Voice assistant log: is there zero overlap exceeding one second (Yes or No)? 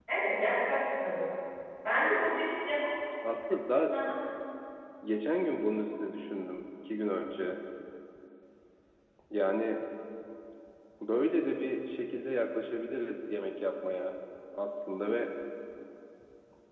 Yes